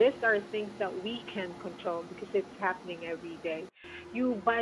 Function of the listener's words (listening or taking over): listening